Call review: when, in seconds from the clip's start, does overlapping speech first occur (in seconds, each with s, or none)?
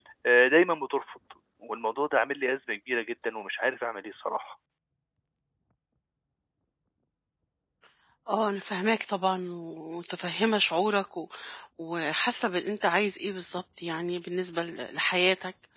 none